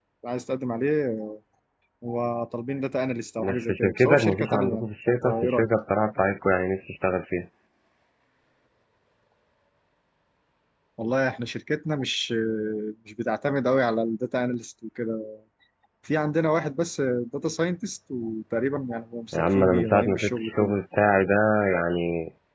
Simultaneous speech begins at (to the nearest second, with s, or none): 3 s